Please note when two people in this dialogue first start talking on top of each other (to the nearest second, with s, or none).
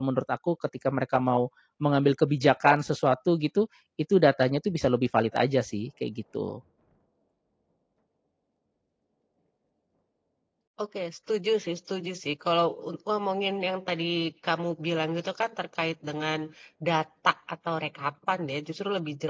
none